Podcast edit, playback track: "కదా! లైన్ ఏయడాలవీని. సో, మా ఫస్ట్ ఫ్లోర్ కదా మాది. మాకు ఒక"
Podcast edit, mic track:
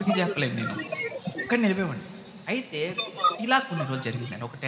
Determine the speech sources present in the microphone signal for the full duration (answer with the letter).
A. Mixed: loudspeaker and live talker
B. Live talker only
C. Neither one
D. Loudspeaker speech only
A